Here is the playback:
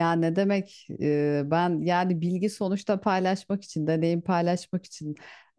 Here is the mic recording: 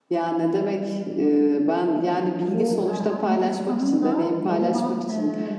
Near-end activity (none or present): present